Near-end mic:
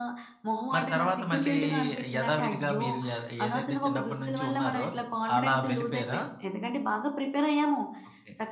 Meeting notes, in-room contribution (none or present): none